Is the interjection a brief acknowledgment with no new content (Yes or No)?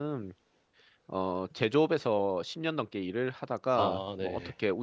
Yes